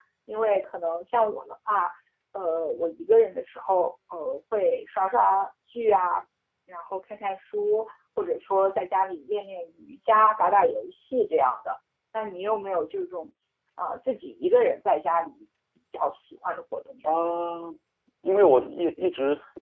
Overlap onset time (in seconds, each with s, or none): none